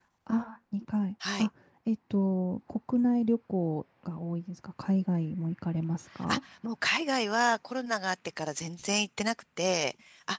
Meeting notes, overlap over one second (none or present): none